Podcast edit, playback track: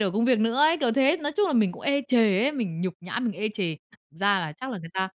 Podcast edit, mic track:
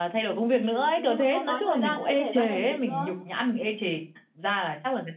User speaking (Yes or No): Yes